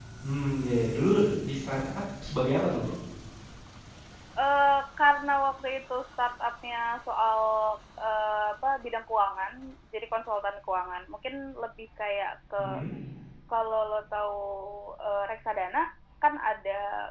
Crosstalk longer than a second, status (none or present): none